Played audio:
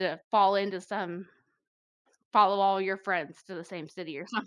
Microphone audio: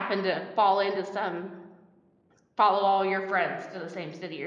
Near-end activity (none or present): none